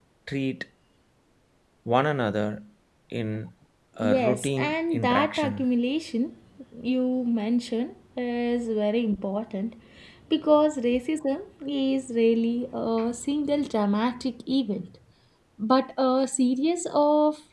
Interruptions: present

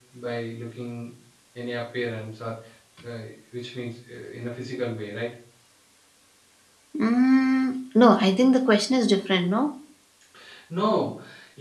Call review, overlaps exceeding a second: none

